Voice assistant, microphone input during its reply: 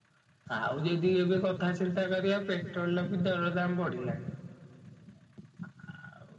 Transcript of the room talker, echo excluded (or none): none